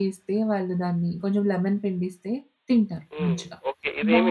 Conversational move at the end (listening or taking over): taking over